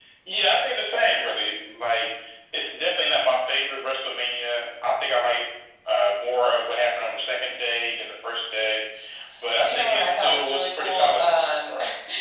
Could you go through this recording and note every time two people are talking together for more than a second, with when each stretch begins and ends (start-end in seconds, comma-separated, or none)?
9.6-11.7